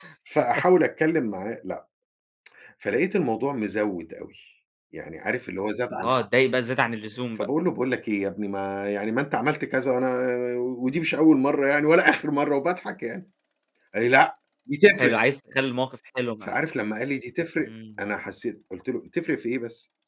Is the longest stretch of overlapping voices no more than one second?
Yes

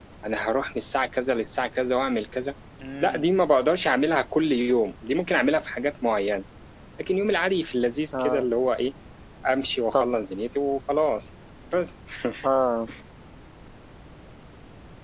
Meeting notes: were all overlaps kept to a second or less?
Yes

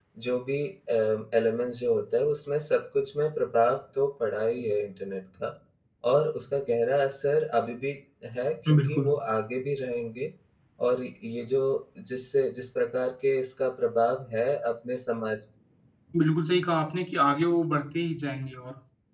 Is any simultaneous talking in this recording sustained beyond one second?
No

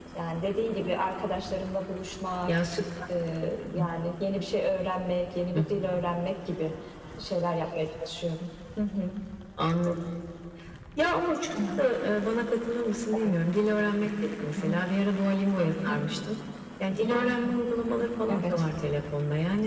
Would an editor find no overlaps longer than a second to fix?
Yes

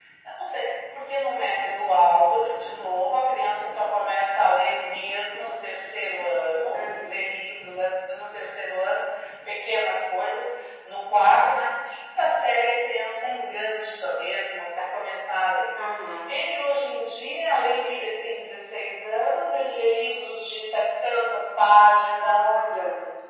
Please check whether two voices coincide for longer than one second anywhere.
No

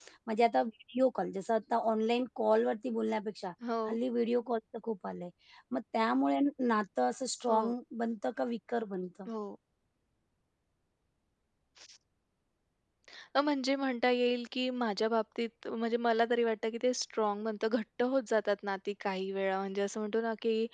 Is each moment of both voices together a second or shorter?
Yes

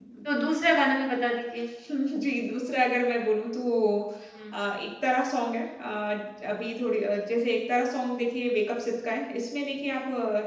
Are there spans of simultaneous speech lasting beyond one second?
No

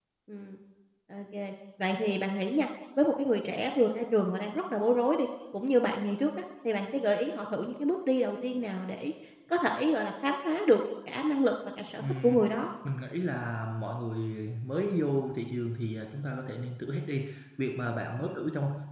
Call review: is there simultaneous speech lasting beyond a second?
No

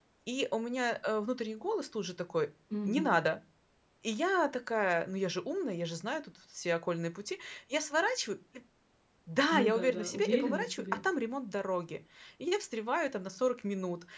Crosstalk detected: Yes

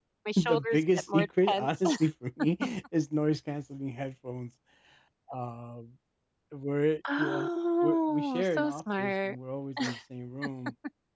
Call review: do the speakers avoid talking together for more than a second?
No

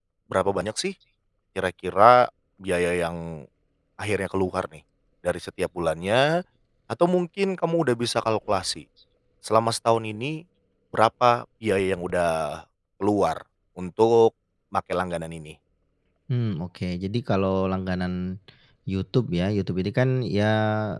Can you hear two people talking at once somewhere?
No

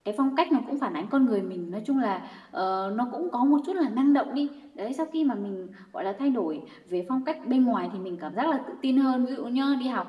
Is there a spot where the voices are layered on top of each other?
No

